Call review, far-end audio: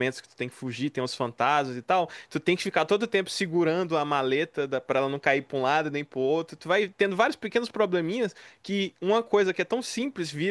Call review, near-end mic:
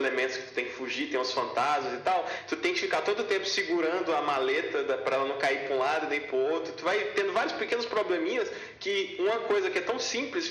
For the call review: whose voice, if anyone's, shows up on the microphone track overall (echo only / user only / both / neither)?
echo only